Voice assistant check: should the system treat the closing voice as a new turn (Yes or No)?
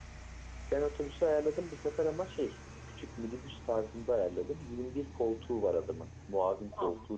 Yes